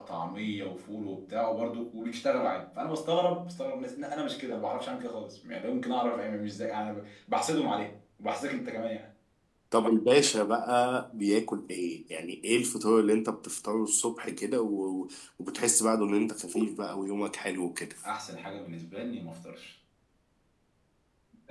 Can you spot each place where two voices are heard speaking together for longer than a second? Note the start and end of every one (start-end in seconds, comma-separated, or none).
none